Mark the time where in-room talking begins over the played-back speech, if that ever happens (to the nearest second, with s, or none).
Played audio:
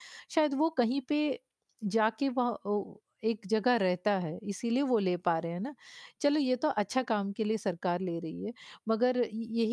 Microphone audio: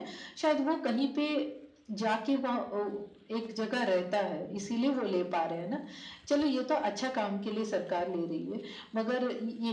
none